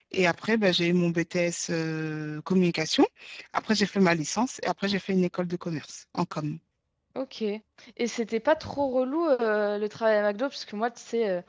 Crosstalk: none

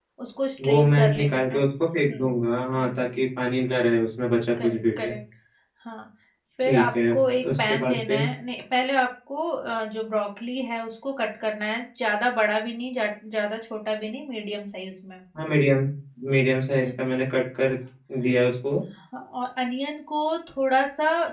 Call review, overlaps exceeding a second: present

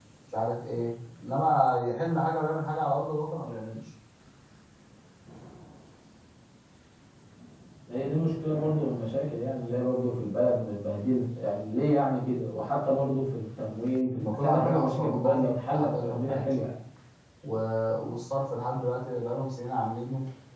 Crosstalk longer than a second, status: present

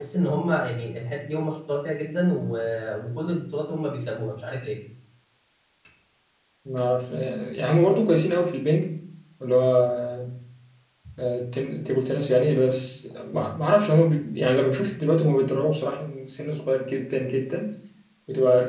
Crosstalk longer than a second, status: none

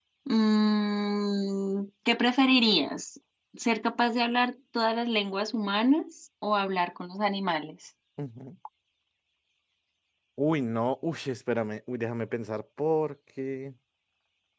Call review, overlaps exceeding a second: none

